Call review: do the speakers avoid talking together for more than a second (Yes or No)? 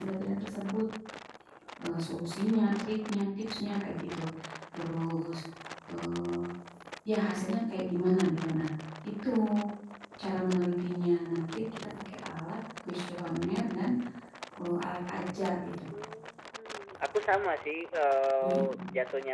Yes